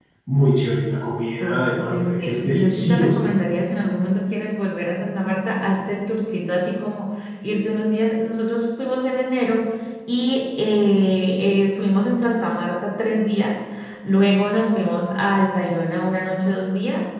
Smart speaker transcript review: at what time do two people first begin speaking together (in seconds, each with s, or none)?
1.4 s